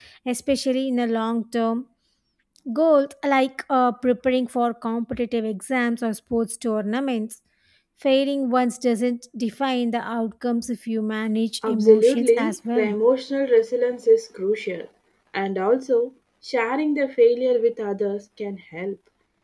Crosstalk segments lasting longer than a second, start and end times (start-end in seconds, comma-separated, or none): 11.7-12.9